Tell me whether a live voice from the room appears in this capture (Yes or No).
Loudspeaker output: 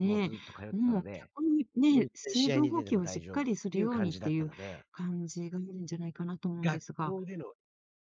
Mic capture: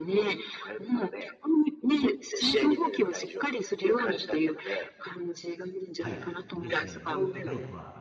Yes